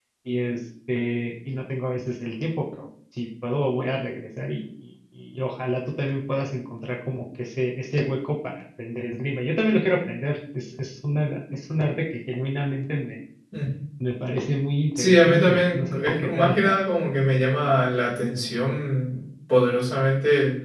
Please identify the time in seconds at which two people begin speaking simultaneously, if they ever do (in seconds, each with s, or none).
15.0 s